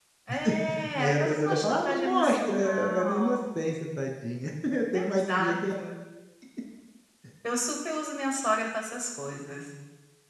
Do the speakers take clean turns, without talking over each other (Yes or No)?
No